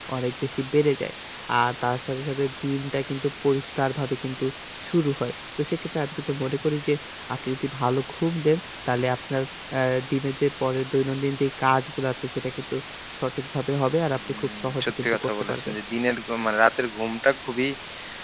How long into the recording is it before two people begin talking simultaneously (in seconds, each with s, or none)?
14.3 s